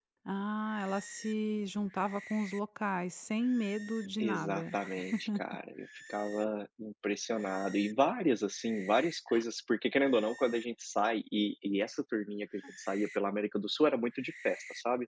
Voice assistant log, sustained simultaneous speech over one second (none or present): none